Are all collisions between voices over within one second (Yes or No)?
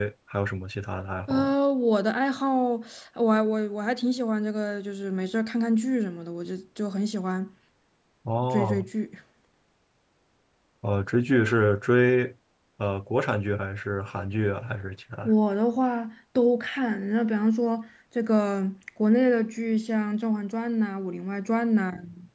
Yes